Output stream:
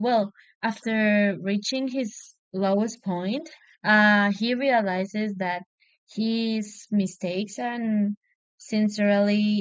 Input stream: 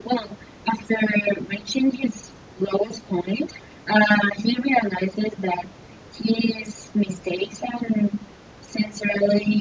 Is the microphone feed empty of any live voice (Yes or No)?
Yes